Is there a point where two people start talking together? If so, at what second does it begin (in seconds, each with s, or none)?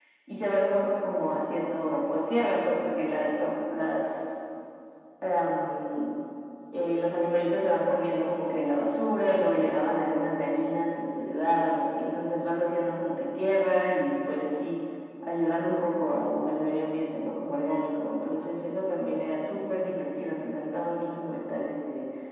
none